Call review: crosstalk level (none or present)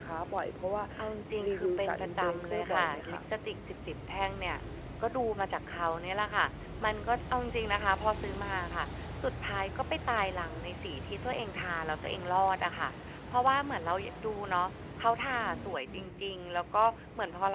present